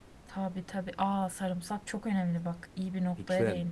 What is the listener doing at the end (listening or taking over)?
taking over